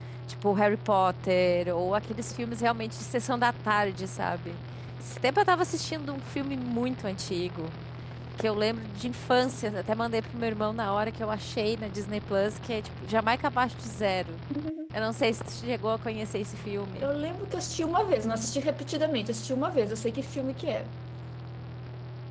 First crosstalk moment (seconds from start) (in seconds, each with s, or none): none